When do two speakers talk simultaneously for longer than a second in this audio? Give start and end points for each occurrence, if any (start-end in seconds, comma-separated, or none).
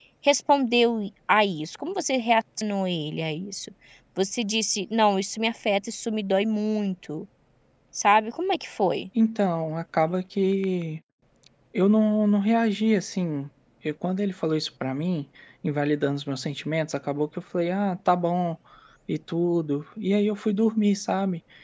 none